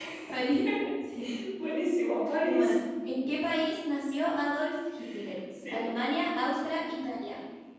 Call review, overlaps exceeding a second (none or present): none